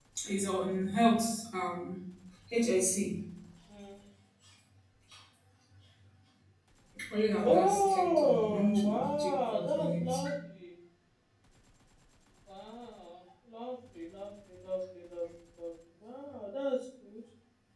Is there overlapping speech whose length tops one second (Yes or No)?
Yes